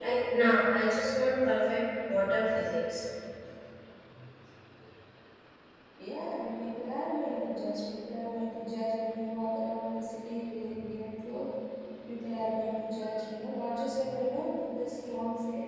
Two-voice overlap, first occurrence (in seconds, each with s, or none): none